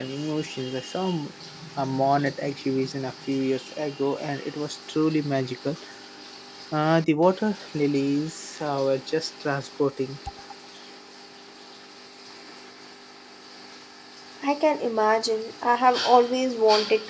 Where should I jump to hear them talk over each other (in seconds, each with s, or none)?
none